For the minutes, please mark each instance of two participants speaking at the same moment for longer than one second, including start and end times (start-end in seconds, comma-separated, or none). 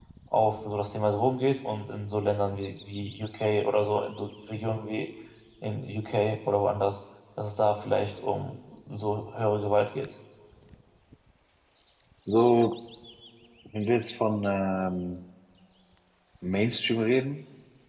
none